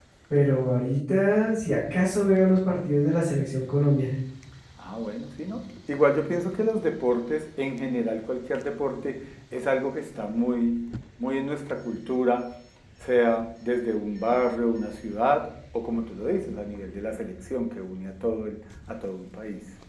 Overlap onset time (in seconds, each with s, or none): none